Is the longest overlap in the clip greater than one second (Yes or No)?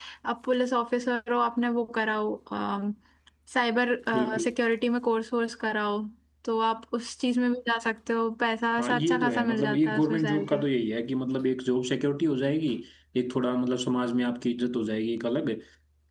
Yes